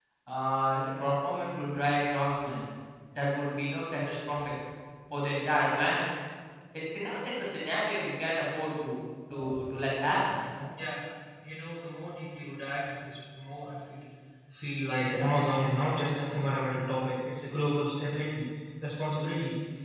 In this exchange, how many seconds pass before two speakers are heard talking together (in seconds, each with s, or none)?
none